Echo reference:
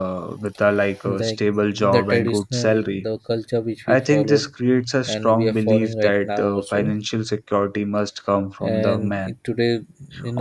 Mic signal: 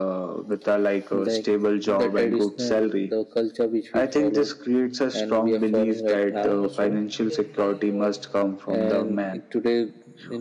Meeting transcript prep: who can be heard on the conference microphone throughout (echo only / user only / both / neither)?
both